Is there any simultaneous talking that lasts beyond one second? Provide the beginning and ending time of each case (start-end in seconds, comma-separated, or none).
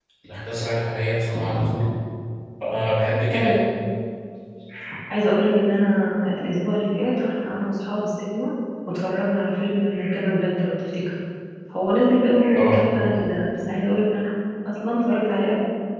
none